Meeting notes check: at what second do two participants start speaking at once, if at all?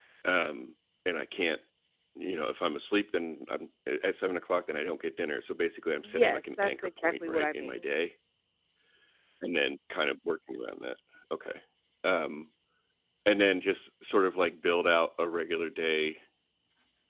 6.0 s

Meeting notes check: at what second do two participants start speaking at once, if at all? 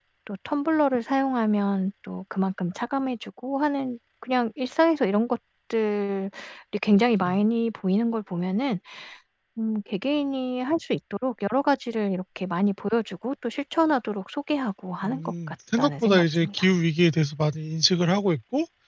15.0 s

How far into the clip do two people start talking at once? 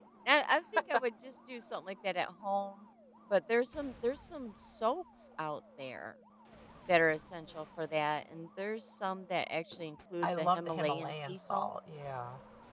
10.2 s

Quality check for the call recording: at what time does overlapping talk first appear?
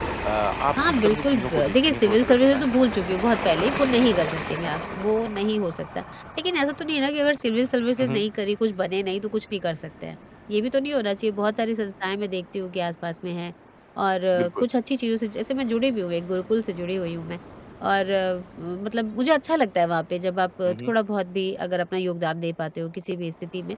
1.1 s

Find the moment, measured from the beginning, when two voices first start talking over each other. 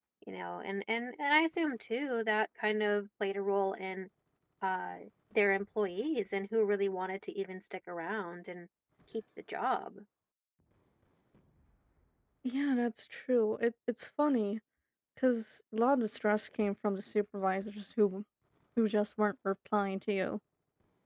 none

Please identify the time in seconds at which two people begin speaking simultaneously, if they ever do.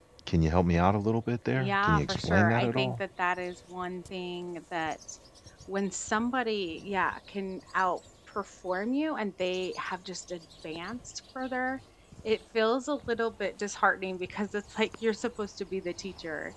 1.5 s

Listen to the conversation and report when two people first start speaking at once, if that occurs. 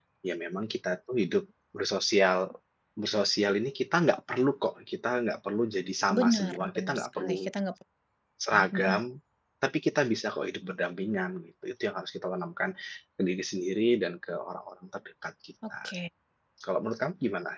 6.2 s

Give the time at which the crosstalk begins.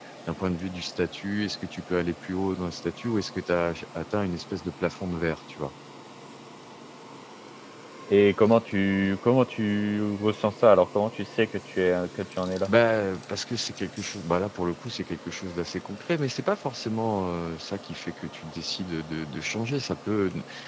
none

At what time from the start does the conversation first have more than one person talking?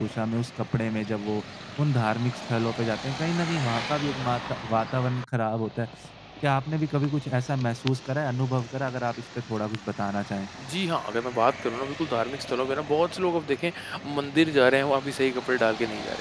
none

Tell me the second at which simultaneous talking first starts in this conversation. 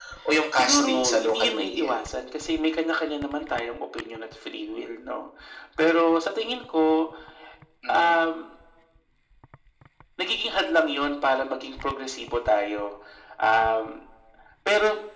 0.5 s

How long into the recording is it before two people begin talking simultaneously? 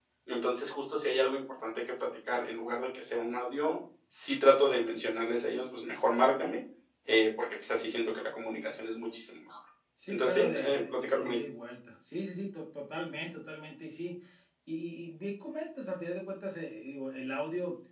10.1 s

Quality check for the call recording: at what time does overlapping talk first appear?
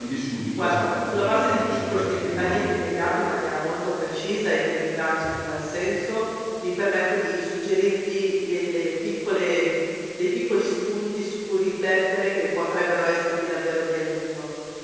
0.6 s

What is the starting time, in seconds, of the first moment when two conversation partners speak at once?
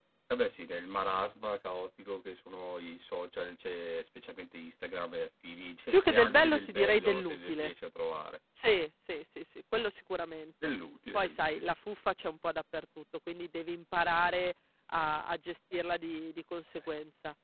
5.9 s

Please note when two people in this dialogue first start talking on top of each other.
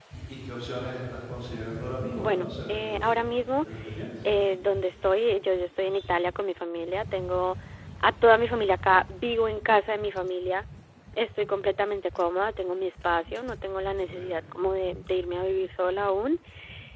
2.2 s

